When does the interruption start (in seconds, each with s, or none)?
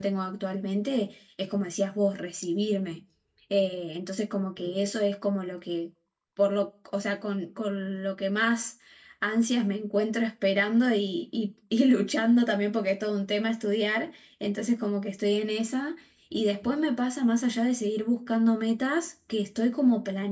none